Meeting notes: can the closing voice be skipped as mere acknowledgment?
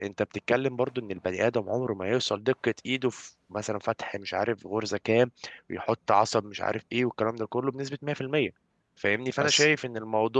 Yes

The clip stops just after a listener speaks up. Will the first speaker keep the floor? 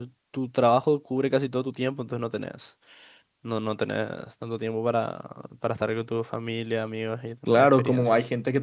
No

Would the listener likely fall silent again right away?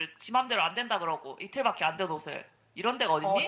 No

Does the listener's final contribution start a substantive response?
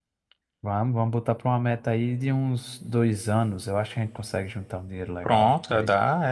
Yes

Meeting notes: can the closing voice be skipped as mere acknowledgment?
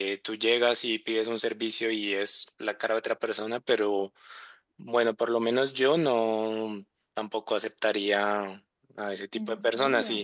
Yes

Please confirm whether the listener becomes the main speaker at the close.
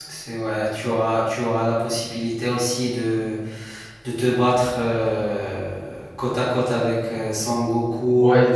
Yes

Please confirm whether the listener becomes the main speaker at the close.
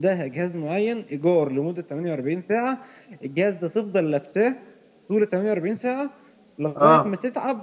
No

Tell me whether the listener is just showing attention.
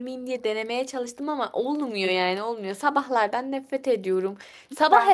Yes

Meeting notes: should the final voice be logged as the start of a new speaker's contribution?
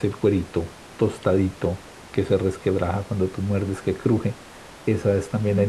No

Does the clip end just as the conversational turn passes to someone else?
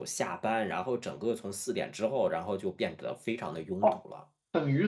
Yes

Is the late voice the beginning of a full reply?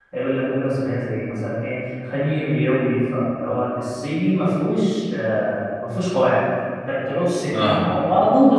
No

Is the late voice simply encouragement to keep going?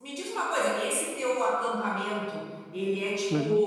Yes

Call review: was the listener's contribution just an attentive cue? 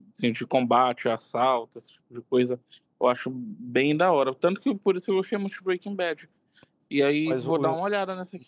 No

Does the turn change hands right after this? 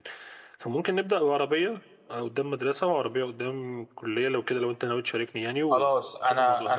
Yes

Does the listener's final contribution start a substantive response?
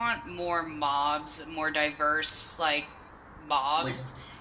No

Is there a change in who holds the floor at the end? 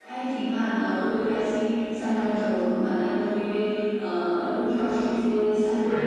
Yes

